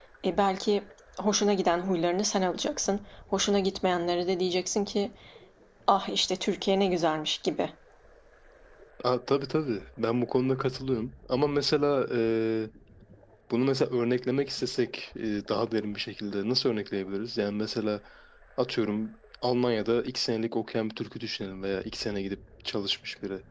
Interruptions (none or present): none